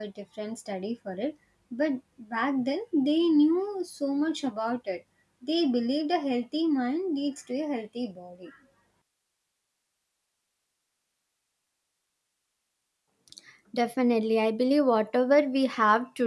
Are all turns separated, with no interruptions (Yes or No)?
Yes